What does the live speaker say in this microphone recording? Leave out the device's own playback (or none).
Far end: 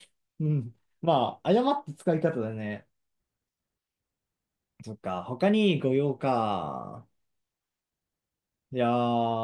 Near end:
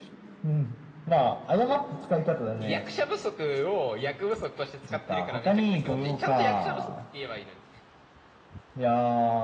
役者不足を役不足として使ってるからめちゃくちゃ気持ちいい。ちゃんと役者不足って言えばいいのに。